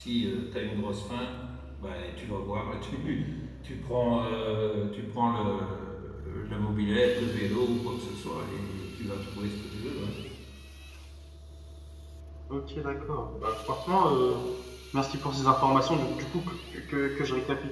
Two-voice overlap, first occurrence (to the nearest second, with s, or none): none